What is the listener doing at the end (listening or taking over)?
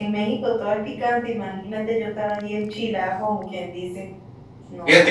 taking over